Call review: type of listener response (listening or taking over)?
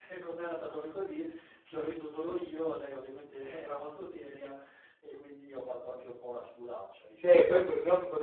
taking over